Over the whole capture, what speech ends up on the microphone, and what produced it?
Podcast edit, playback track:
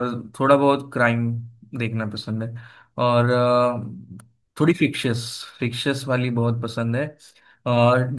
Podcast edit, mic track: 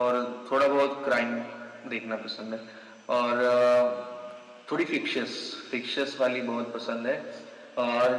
echo only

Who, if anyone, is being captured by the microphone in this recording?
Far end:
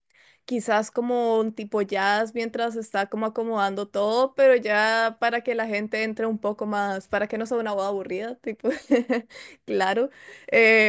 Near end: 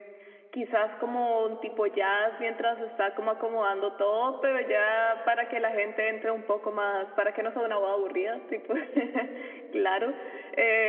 echo only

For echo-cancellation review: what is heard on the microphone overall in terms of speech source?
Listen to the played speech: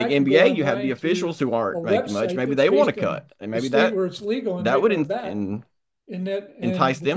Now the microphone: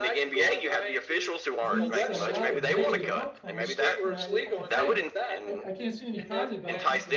both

